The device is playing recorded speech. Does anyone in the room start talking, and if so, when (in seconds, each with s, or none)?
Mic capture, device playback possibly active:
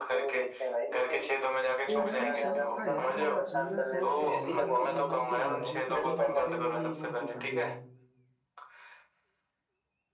1.9 s